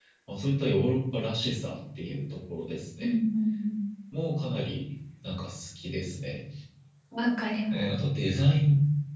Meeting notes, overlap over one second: none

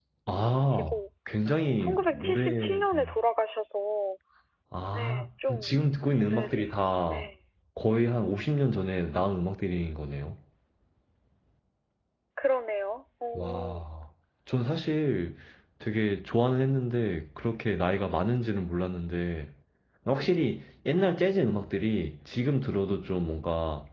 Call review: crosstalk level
present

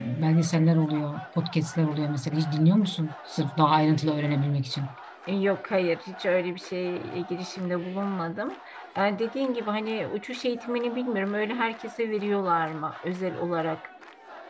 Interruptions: none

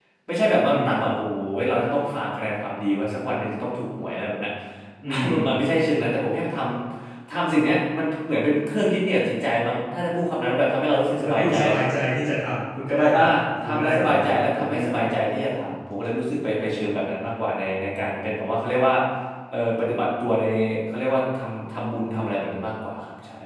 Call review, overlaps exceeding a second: present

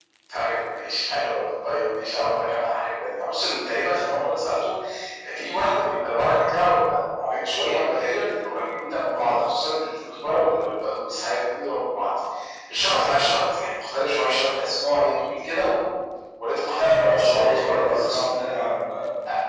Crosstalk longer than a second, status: present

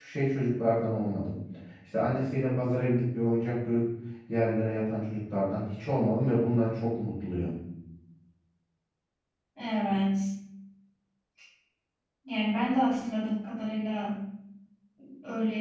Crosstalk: none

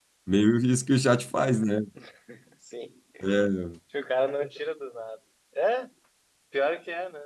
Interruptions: none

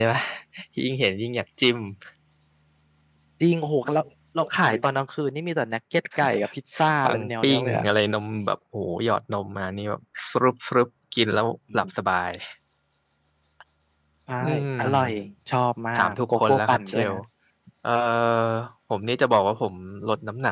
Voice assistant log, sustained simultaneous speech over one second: present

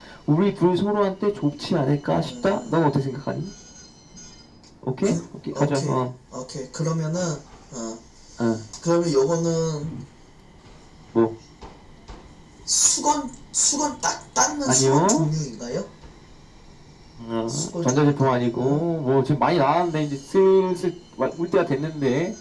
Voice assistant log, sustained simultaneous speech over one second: present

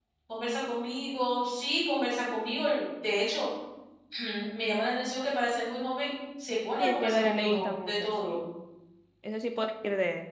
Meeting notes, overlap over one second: present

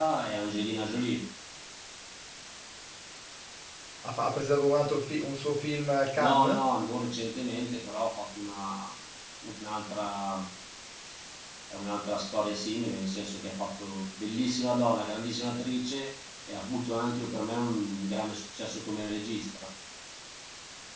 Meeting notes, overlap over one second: none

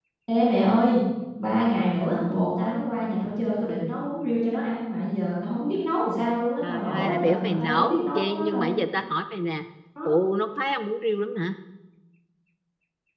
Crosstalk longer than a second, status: present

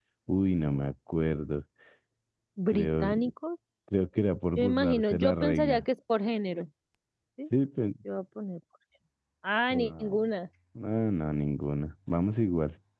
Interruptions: present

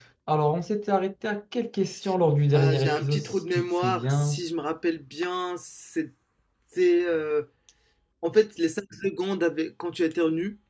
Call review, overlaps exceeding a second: present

